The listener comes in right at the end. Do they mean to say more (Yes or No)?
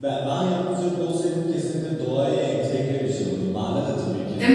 No